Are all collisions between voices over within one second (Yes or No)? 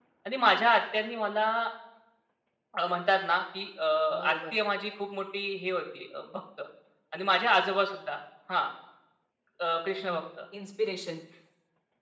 Yes